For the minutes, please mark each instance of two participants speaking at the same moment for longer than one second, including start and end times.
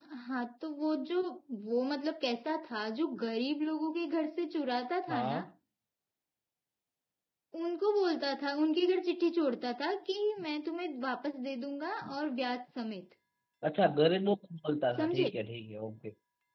none

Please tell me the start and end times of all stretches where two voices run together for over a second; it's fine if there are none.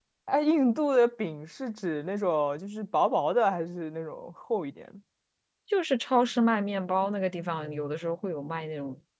none

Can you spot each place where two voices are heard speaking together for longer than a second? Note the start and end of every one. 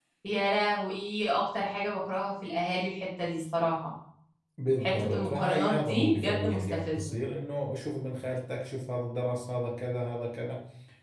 4.8-7.0

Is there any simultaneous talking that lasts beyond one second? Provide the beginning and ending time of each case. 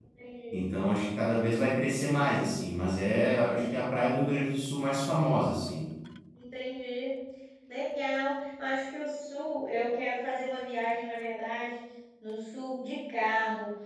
none

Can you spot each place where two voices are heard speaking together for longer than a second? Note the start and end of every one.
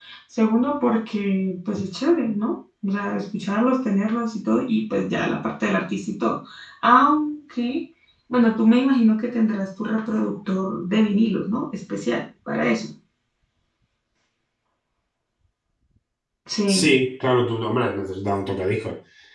none

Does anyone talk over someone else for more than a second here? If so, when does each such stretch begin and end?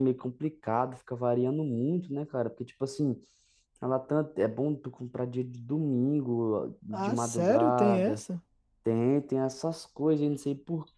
6.9-8.2

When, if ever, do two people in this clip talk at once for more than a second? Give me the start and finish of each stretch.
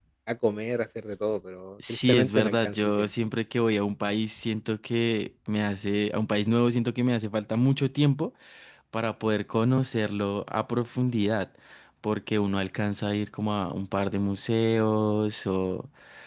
1.9-3.1

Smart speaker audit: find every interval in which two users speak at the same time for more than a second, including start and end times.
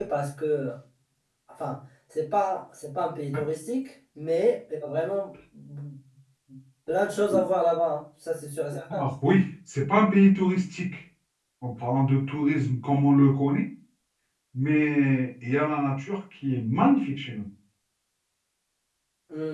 none

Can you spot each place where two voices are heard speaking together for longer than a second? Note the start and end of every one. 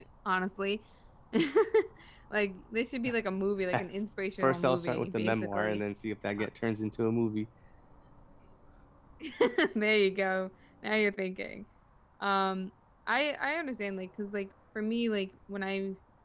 4.4-5.8

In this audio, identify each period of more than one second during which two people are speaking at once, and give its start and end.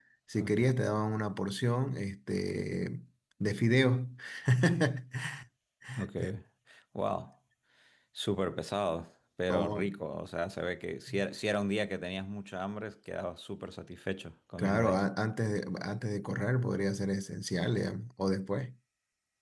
none

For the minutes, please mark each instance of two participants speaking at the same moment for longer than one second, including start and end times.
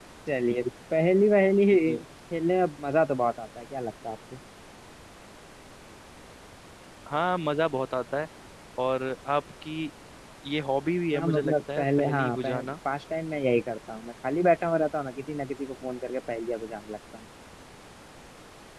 11.1-12.7

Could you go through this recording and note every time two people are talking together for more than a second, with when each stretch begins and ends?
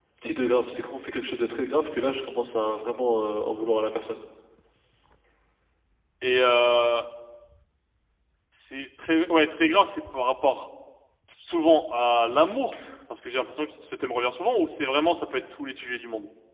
none

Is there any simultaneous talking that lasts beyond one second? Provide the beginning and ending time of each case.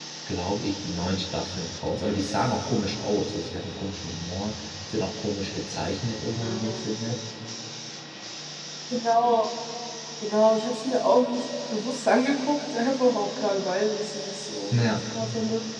none

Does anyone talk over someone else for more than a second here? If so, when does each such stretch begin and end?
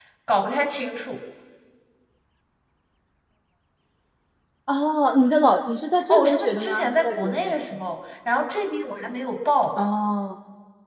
6.1-7.5

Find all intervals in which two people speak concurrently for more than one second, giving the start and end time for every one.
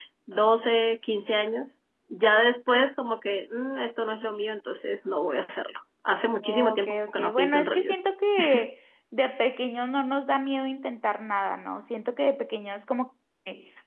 6.4-8.0

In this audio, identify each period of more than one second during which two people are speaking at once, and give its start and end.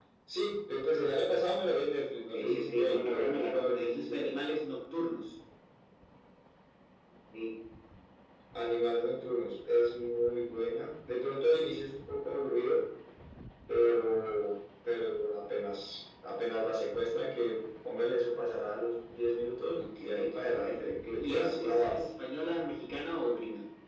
2.1-4.4, 19.8-22.0

